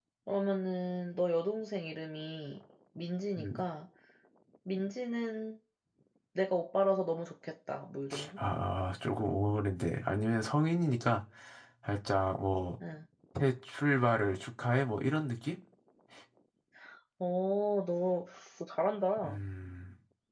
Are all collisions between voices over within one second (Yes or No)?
Yes